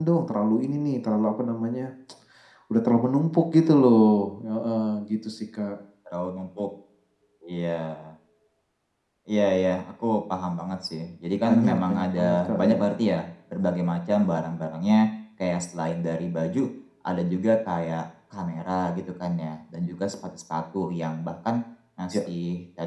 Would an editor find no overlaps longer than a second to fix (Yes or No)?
No